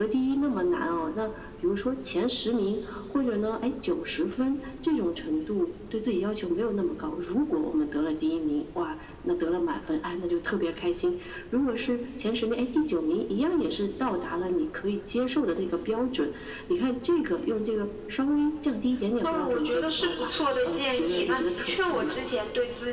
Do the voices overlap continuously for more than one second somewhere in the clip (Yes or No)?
Yes